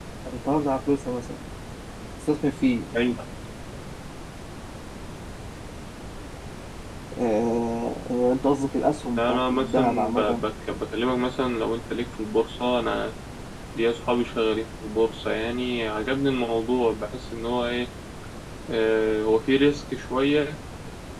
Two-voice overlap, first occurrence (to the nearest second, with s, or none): 9 s